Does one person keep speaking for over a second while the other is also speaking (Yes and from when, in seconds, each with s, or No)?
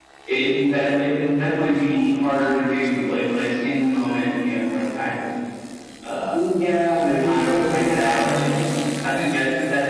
Yes, from 6.9 s